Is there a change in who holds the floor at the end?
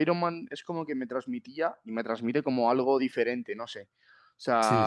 No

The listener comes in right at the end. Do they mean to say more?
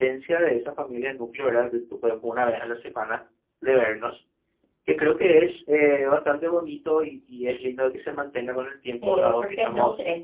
Yes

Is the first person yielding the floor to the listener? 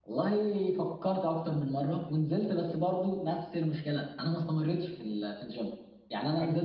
No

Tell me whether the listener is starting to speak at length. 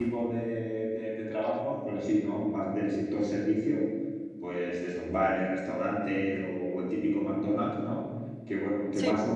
No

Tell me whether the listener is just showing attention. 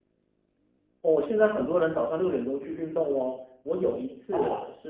Yes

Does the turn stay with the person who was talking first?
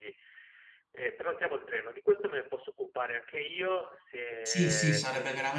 No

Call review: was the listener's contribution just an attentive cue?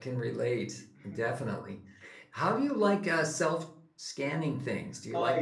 No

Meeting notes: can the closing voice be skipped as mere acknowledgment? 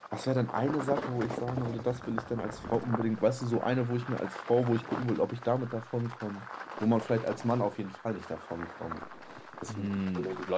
No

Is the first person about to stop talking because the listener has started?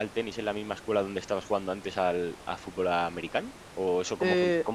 No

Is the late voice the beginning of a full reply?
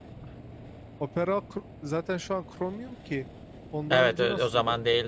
Yes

